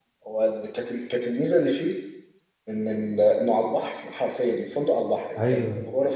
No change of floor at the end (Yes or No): Yes